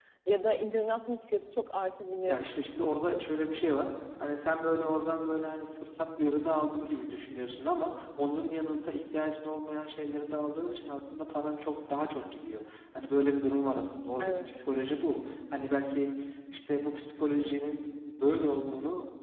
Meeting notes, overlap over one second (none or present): none